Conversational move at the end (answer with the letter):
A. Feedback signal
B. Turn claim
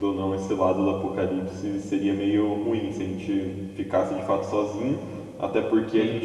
A